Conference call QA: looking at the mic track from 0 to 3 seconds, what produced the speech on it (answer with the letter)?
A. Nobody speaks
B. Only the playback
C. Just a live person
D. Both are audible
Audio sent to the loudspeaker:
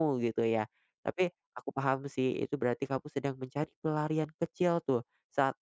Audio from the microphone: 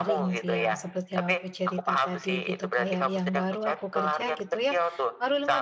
D